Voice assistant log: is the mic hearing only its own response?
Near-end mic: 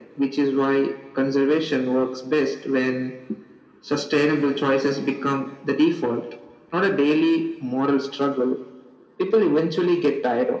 Yes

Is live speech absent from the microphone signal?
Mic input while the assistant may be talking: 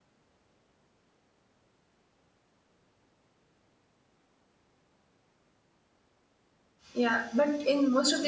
No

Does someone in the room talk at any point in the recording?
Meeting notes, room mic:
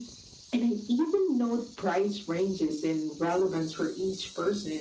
No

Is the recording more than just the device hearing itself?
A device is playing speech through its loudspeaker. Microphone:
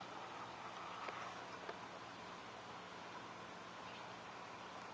No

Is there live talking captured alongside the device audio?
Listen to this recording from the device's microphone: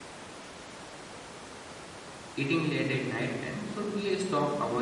Yes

